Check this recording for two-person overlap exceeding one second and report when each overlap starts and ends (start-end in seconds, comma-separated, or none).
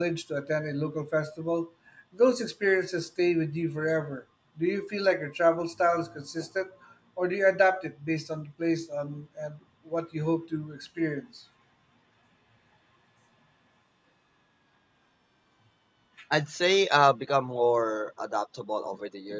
none